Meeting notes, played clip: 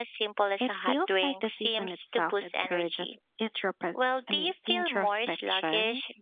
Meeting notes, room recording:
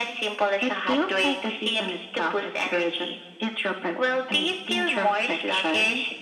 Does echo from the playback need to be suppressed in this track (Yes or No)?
Yes